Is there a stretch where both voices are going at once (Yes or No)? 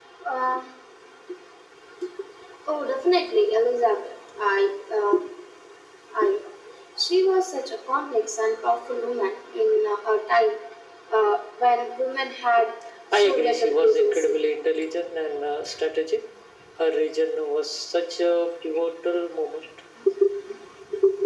Yes